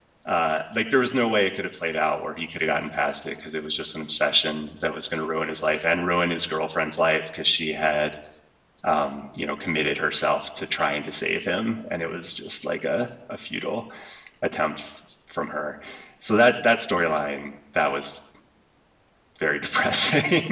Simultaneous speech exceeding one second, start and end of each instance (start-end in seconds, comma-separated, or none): none